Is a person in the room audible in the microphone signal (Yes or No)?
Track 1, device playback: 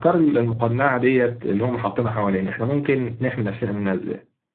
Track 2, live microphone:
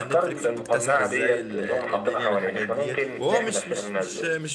Yes